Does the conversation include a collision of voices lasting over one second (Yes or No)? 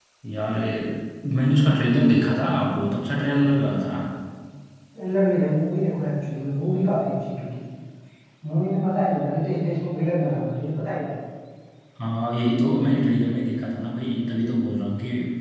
No